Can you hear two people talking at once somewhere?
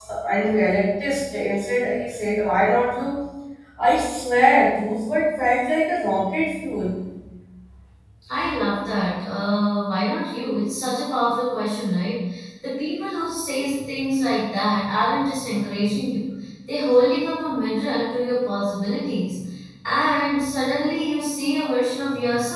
No

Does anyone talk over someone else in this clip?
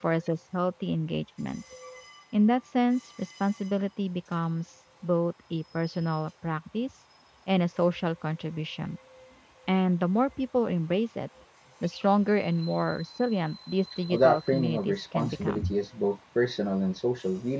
Yes, from 14.1 s

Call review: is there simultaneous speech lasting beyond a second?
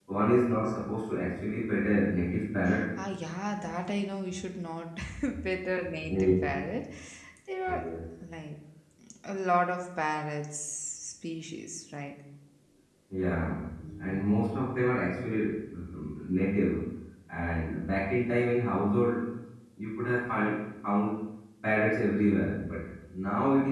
No

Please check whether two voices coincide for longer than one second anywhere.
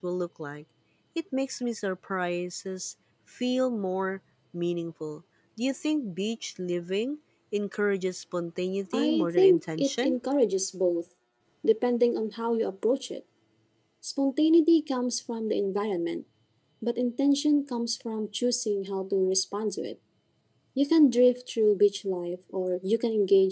Yes, from 8.9 s

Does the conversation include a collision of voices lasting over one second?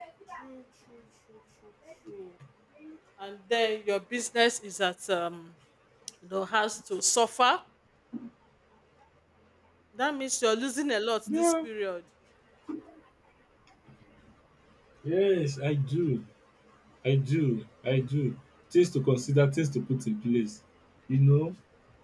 No

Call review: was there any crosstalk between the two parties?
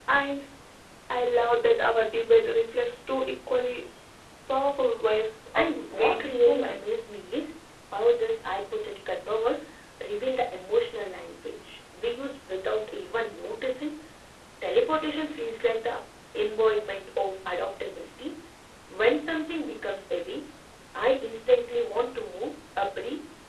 Yes, from 5.6 s

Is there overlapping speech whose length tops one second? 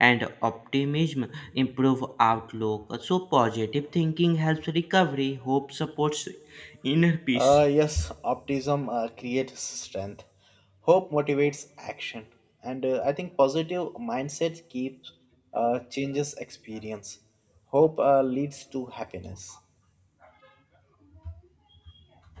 No

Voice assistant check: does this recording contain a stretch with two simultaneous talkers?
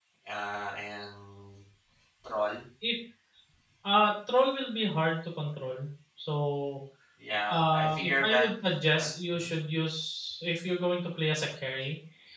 Yes, from 7.5 s

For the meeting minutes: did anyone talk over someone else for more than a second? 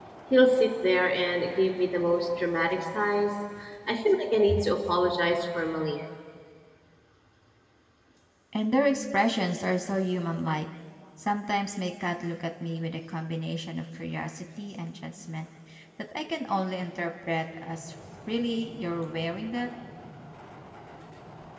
No

